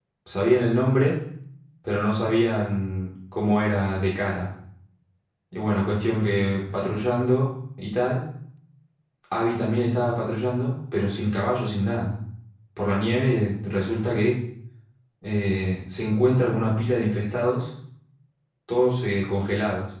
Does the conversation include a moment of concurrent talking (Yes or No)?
No